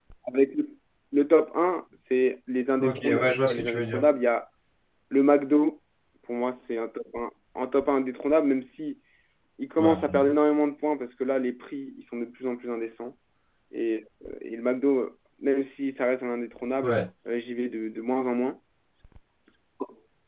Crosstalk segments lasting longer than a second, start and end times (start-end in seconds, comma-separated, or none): 2.8-4.0